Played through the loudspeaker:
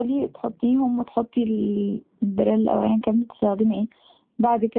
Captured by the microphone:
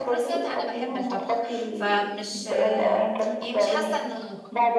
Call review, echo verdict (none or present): present